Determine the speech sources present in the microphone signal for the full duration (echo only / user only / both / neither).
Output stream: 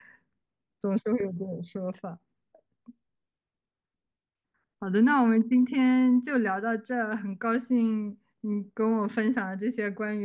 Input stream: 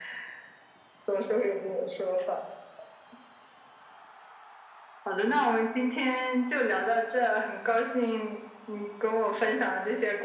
echo only